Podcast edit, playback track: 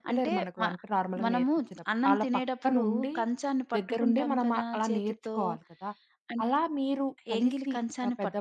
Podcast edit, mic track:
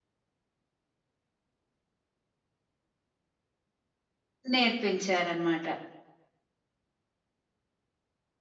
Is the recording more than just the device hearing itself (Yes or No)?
Yes